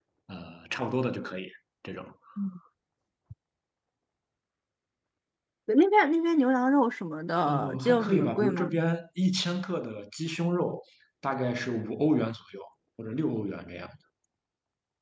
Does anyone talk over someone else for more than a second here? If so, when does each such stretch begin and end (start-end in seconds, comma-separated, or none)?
7.5-8.7